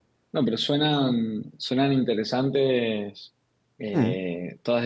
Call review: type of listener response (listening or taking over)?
listening